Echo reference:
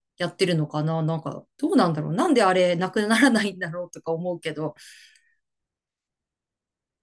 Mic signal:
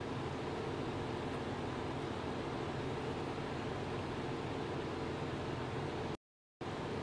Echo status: none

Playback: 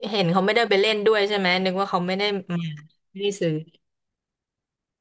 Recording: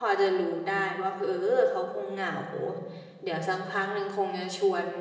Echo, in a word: none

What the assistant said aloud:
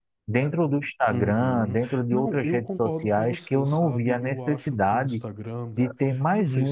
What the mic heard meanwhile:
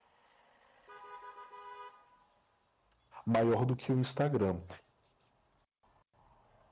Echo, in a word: none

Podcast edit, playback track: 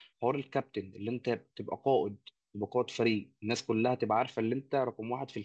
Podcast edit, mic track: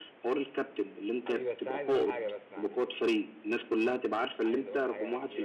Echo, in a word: present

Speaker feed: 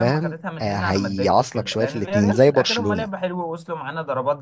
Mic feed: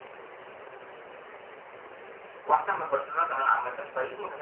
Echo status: none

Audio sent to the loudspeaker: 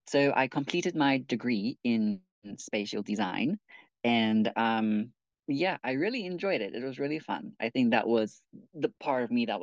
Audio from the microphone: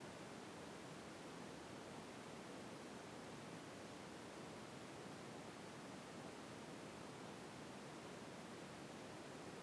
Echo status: none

